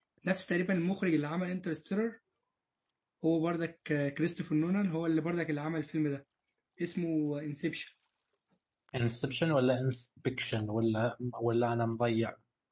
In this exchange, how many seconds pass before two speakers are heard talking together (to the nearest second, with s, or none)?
none